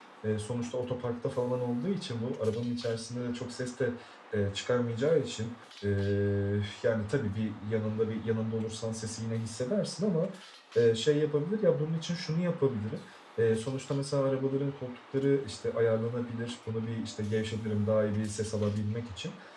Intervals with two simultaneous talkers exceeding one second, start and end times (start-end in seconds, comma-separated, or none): none